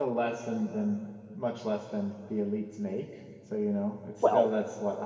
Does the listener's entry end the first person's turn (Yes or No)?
No